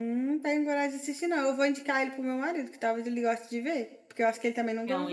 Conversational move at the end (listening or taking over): taking over